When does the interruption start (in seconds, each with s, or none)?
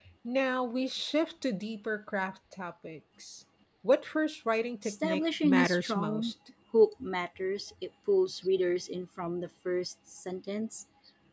4.8 s